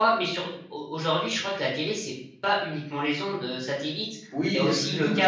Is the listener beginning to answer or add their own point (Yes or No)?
Yes